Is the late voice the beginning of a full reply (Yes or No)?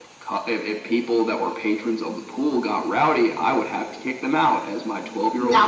Yes